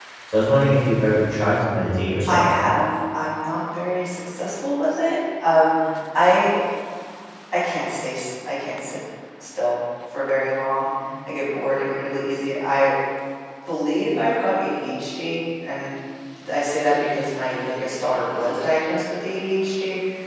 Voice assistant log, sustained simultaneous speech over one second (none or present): none